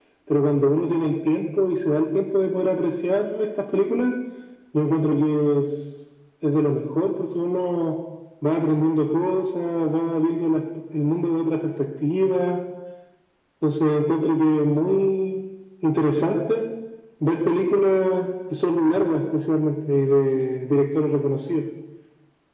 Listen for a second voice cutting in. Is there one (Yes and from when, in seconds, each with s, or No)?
No